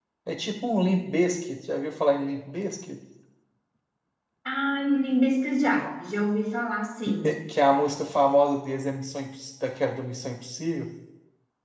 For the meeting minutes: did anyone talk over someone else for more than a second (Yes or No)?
No